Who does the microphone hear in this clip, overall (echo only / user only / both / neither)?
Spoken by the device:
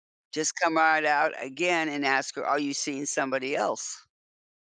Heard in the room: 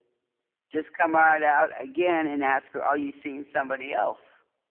echo only